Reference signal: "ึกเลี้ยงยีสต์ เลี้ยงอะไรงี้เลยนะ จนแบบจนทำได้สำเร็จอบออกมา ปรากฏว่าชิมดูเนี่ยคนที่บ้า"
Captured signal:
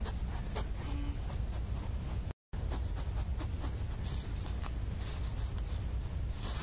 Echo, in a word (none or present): none